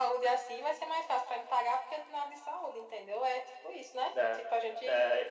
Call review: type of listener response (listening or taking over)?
taking over